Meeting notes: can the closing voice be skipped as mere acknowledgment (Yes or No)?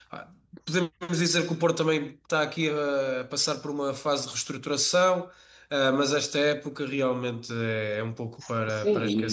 No